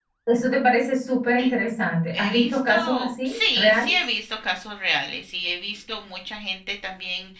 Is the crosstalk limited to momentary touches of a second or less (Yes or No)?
No